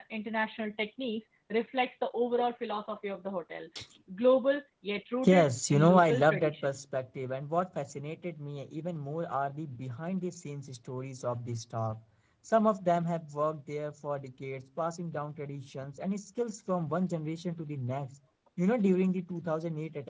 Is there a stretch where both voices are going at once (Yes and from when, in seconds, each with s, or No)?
Yes, from 5.2 s